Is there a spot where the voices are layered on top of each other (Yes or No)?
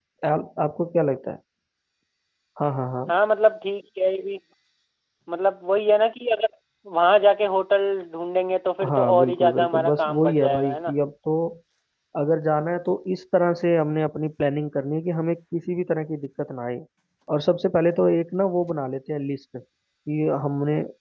Yes